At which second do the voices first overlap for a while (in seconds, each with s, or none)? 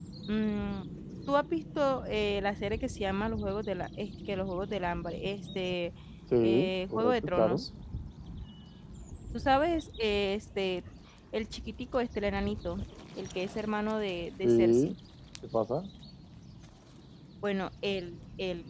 6.4 s